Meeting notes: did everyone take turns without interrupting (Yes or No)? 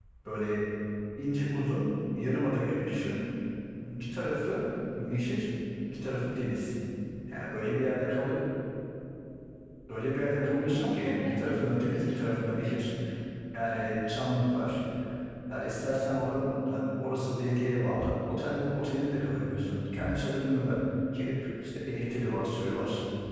No